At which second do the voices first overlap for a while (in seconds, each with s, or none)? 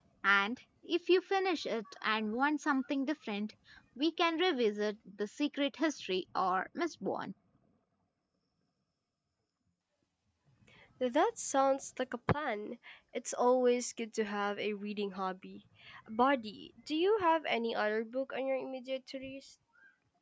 none